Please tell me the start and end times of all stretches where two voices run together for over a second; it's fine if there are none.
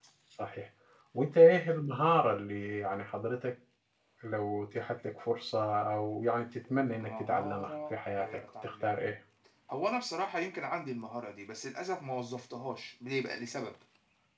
7.0-9.1

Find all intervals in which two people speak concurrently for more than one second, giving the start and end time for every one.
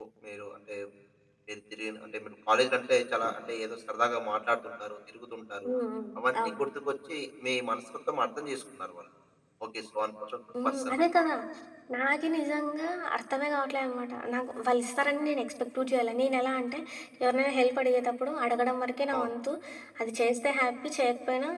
none

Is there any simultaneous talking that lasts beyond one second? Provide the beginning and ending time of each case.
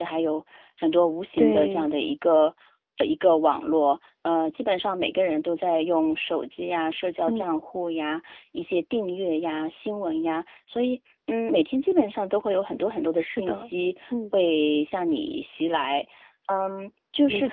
none

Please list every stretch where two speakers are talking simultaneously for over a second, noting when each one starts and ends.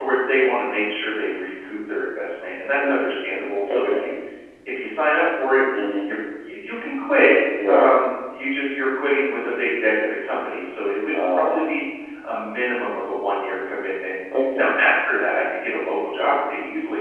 2.7-4.1

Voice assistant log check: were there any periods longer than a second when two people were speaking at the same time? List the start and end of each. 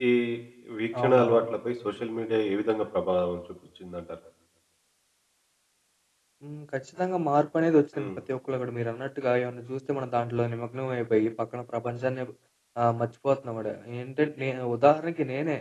none

